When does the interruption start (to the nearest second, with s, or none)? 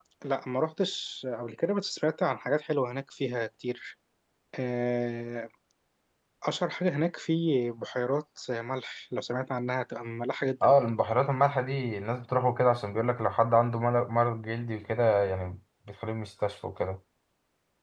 none